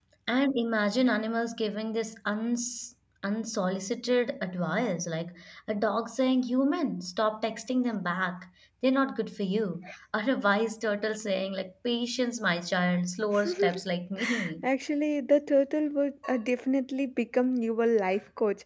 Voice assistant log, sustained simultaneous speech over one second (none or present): none